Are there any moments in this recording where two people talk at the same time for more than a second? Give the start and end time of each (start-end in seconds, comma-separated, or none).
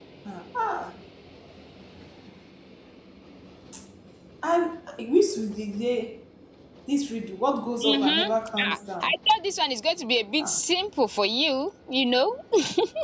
7.8-9.1